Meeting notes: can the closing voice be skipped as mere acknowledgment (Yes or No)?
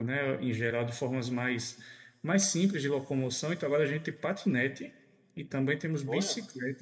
Yes